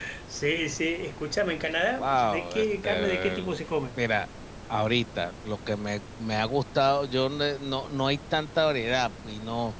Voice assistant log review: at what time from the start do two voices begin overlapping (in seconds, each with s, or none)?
2.0 s